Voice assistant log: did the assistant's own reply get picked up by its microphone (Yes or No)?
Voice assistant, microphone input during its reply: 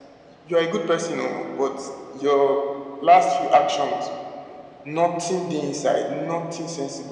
Yes